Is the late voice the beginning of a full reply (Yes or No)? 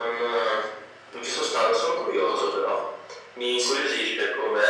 No